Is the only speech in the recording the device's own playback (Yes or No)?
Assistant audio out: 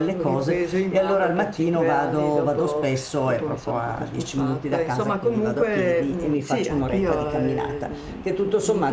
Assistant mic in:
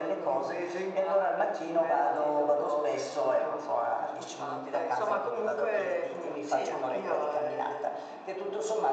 Yes